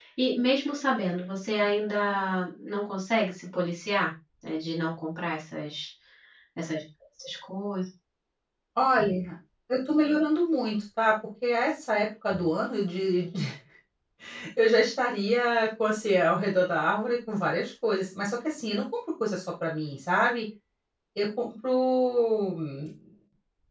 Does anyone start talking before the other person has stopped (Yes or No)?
No